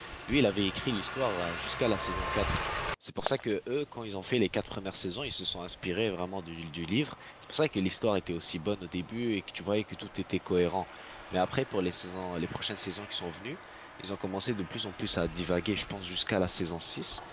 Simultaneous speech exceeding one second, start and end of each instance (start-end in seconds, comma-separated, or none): none